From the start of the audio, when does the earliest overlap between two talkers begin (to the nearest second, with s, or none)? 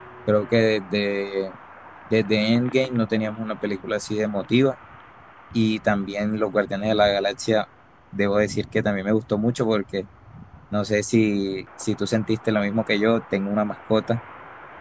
none